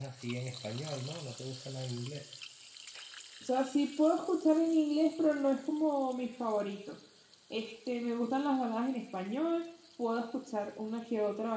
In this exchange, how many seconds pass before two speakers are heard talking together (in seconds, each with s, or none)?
none